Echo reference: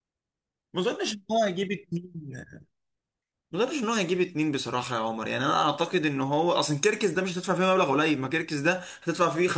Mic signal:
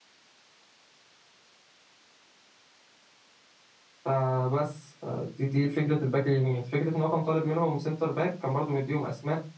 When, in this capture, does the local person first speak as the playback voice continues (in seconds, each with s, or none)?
4.0 s